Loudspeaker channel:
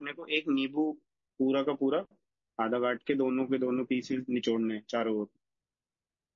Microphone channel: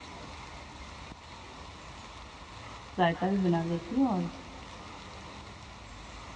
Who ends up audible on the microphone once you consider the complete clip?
user only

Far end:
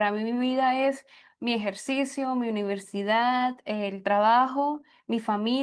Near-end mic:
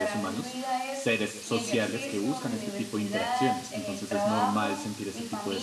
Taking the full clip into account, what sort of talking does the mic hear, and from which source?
both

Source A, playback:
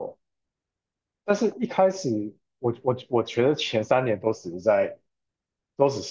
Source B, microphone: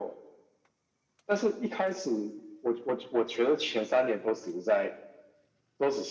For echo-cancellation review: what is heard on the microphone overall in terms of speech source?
echo only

